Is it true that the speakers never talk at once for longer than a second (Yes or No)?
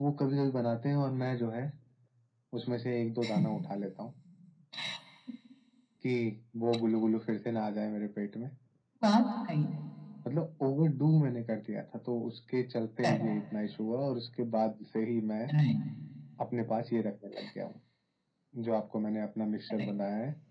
Yes